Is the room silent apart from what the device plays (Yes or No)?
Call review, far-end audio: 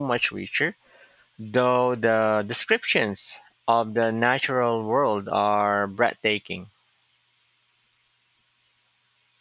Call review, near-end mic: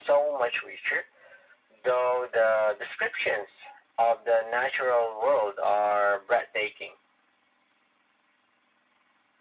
Yes